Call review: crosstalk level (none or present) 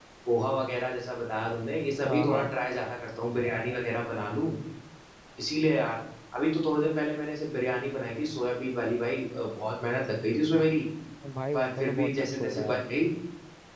present